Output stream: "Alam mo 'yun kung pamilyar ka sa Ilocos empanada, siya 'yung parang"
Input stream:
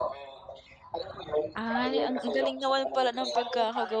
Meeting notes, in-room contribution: present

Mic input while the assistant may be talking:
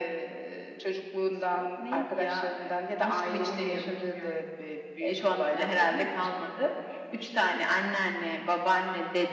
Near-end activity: none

